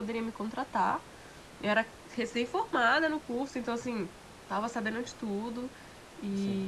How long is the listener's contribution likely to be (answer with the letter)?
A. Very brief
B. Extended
A